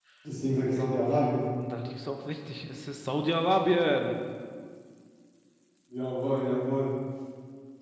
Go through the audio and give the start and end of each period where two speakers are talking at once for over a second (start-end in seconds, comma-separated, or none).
none